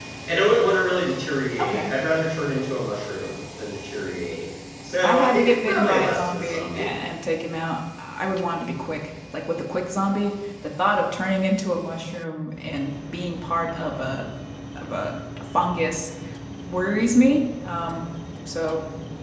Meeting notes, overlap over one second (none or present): present